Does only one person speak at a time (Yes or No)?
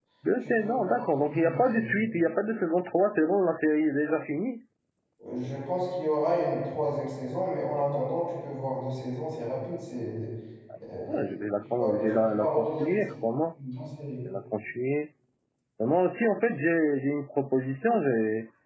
No